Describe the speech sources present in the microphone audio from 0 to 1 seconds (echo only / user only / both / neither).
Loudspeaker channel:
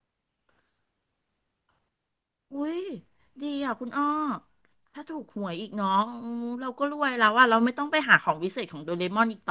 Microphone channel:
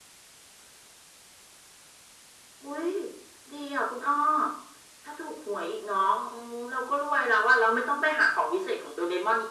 neither